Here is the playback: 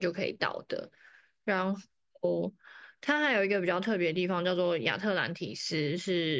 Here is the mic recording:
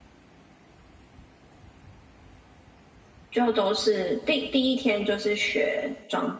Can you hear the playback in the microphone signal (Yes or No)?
No